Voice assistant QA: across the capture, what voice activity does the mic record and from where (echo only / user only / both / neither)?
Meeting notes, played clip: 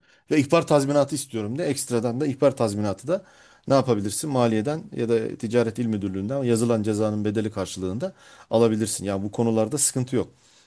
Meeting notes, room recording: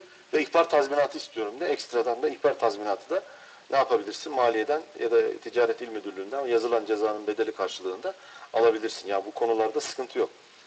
echo only